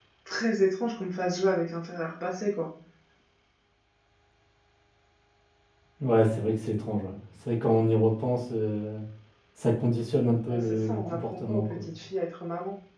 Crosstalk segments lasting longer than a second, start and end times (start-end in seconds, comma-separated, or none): 10.5-11.9